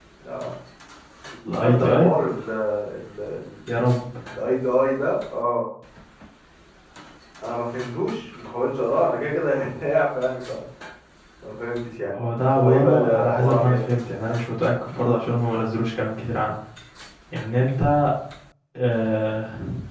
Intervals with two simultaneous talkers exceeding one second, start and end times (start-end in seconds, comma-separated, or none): 12.5-13.9